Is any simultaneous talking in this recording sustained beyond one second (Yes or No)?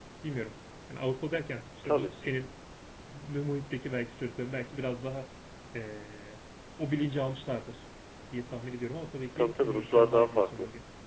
Yes